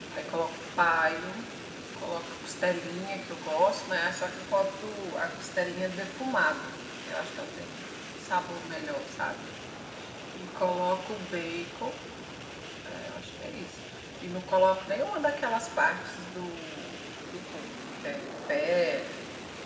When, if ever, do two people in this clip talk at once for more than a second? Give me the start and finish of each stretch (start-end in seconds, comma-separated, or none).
none